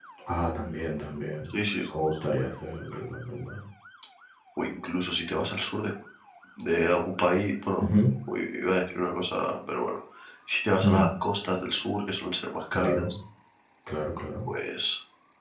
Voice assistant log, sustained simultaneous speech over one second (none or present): none